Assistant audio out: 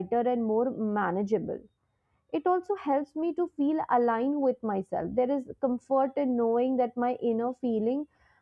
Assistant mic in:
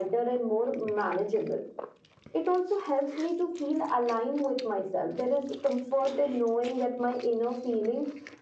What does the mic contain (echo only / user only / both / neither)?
echo only